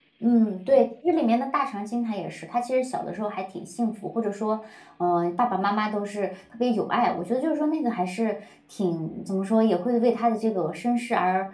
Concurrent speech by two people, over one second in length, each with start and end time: none

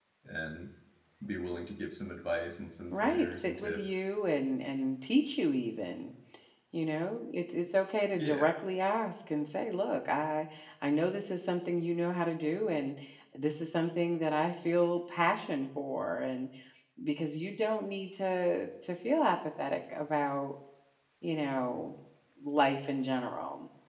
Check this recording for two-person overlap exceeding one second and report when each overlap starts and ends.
2.9-4.1

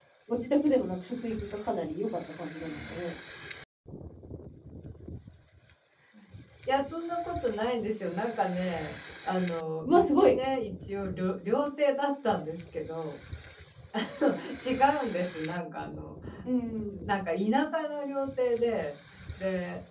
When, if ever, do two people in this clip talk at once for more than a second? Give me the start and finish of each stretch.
none

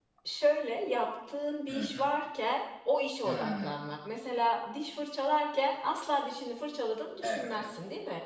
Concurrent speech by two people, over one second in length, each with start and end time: none

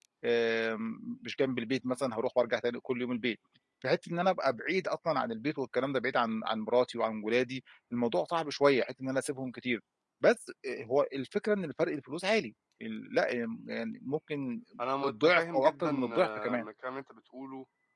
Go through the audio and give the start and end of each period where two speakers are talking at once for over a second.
15.1-16.6

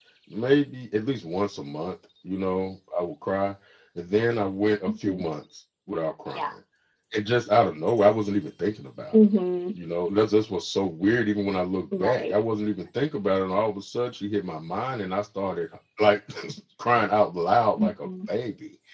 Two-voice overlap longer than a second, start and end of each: none

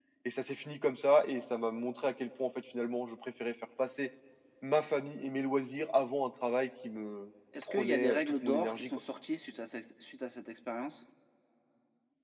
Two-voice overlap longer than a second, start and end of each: 7.6-8.9

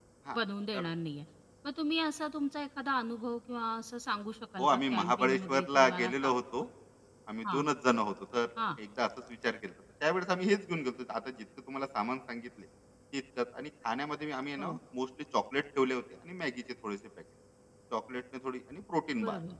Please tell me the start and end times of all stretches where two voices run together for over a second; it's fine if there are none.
4.6-6.3

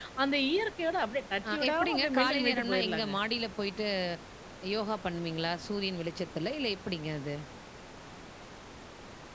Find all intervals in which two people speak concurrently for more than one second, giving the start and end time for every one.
1.5-3.1

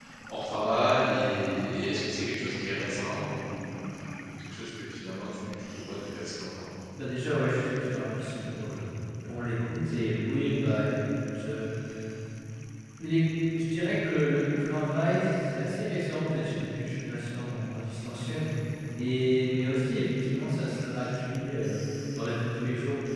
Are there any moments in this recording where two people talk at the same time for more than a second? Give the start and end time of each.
none

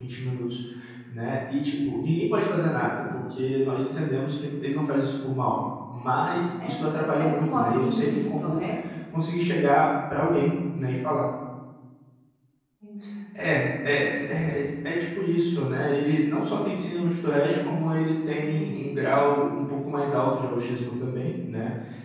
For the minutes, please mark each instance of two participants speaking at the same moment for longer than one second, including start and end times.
7.2-8.6

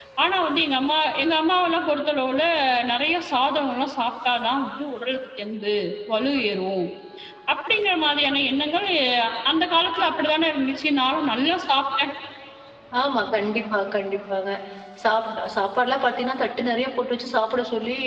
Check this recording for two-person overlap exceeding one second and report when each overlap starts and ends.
none

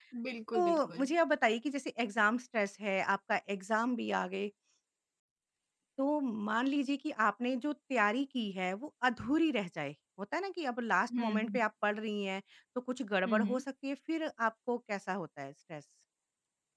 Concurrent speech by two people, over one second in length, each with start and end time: none

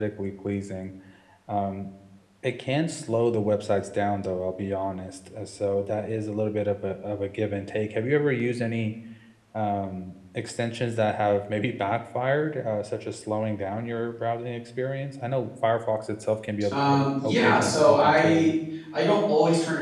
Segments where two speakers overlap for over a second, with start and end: 16.7-18.5

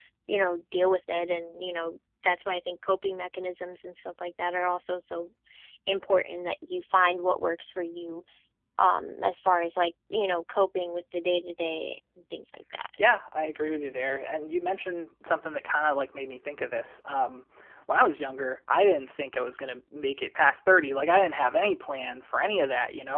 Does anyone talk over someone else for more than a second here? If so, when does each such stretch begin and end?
none

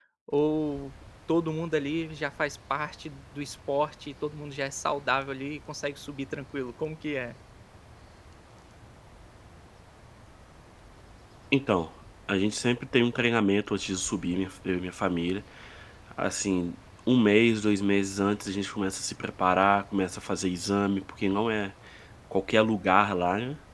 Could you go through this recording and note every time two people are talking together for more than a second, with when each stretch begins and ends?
none

